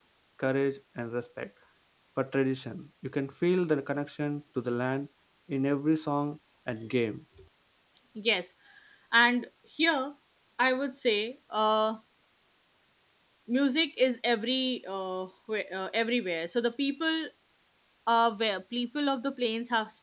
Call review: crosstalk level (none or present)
none